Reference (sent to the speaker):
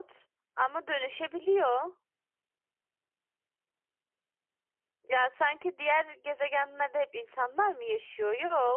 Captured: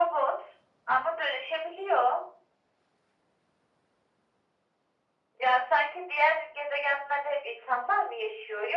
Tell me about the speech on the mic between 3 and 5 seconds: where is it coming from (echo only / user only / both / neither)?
neither